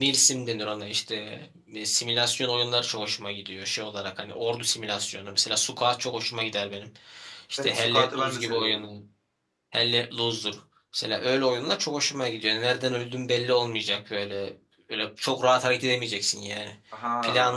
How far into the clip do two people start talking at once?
8 s

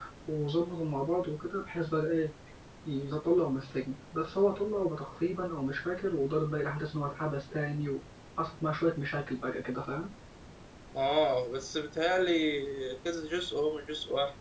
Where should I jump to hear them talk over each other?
none

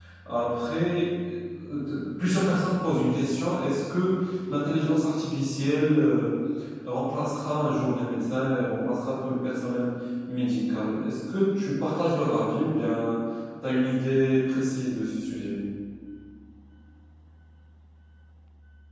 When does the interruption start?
none

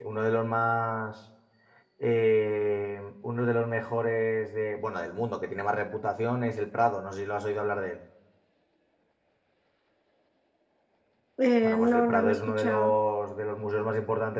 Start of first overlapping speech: 12 s

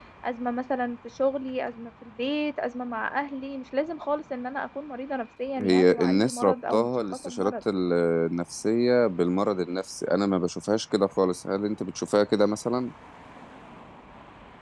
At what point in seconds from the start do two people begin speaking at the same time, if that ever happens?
6 s

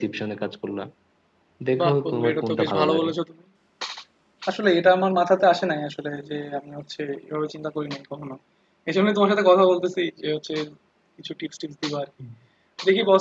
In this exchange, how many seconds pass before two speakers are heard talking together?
2 s

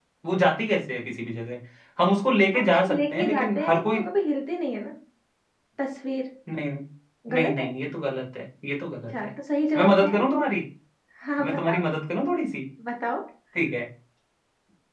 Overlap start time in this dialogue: 3 s

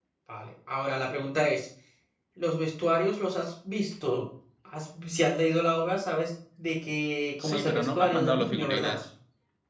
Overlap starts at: 7 s

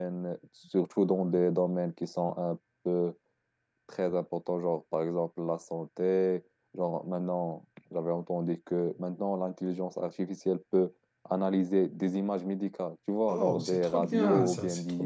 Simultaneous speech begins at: 13 s

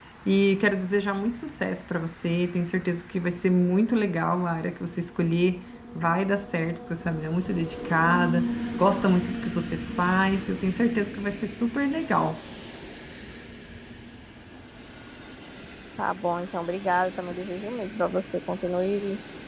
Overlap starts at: none

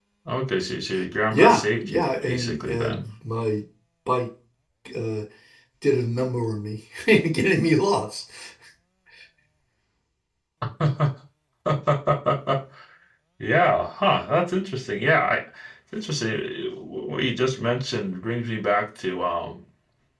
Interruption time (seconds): 1 s

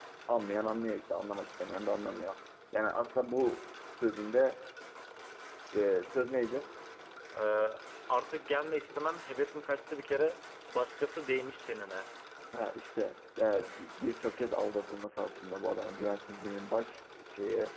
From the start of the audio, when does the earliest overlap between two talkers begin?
none

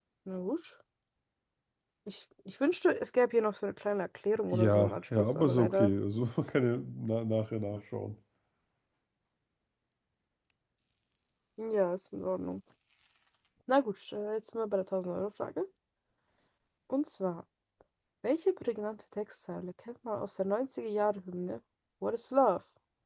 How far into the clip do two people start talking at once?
5 s

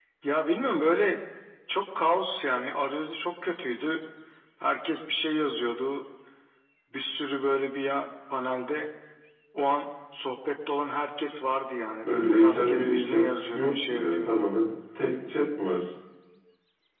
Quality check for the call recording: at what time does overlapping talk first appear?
12 s

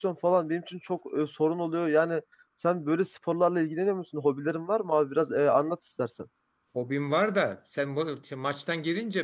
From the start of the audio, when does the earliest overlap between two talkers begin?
none

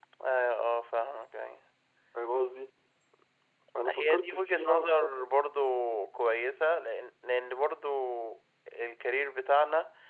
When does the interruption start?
4 s

